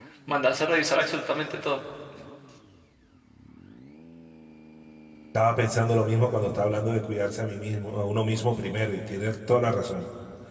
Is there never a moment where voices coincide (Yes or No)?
Yes